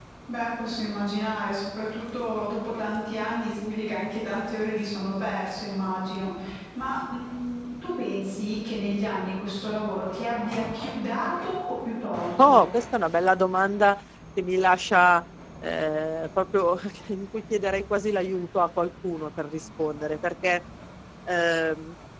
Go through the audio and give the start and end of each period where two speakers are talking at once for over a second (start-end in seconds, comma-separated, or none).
none